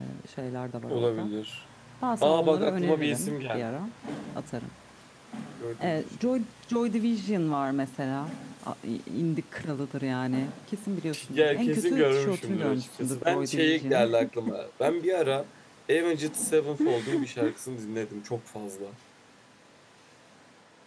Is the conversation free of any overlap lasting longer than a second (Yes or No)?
No